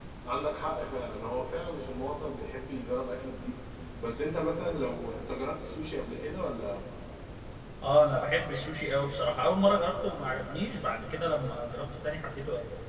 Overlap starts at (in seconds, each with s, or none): none